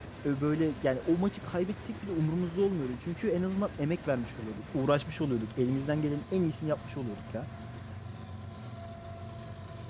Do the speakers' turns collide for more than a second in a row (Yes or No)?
No